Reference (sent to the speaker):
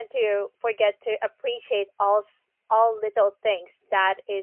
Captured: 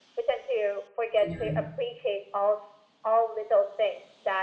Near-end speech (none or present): present